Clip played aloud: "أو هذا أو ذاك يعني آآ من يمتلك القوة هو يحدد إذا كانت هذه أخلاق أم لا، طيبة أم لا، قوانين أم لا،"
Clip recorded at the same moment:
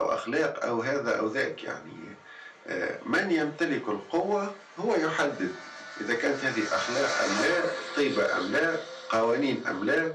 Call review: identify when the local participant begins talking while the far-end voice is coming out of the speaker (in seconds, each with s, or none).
none